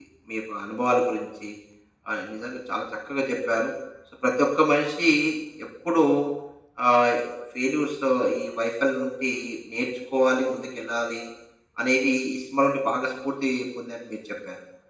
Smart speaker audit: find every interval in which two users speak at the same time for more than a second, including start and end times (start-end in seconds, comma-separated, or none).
none